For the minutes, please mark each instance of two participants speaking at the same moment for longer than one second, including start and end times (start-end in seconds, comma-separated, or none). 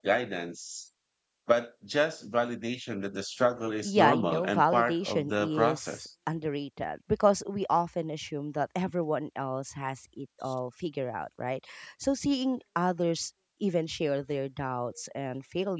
3.8-6.0